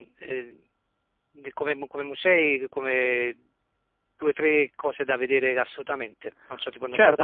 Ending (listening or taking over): taking over